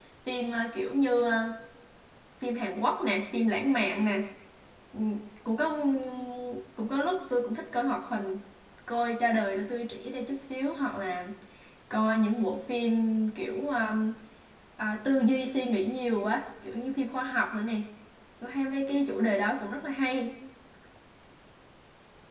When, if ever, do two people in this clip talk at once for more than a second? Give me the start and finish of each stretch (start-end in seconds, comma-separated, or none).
none